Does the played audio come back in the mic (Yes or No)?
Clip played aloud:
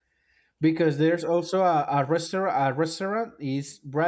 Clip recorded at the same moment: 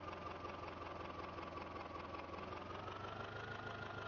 No